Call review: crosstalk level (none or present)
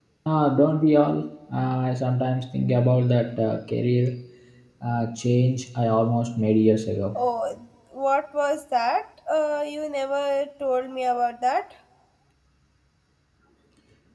none